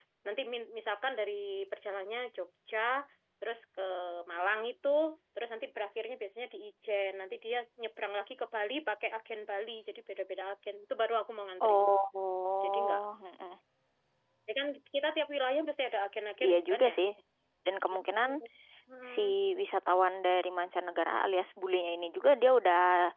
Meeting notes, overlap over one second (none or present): none